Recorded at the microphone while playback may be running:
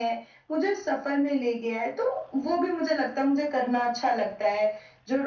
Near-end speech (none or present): none